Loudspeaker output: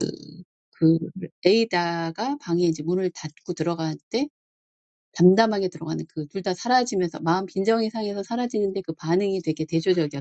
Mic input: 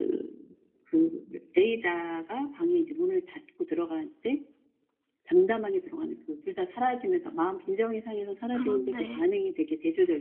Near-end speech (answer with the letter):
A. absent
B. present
B